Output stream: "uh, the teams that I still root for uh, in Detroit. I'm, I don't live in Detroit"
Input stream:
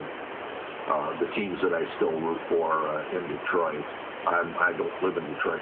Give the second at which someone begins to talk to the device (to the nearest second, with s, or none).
none